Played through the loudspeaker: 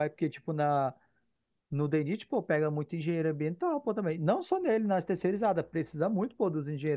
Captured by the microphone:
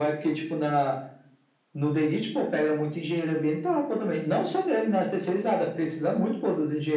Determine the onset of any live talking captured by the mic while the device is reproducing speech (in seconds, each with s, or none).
none